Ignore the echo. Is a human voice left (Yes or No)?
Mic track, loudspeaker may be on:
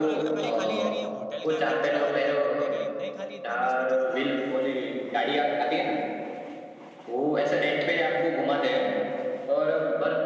Yes